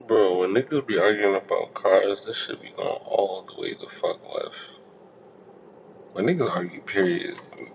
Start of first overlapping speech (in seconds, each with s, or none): none